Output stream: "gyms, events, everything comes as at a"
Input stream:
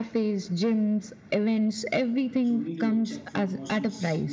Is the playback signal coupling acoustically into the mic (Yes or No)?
Yes